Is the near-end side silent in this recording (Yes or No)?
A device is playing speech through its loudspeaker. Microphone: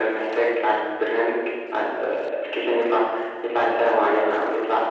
Yes